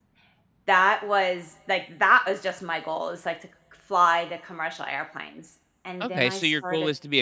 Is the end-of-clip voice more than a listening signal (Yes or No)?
Yes